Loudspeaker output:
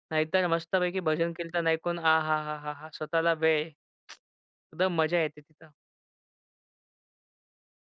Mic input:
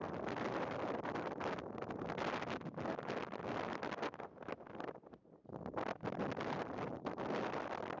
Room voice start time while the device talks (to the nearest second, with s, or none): none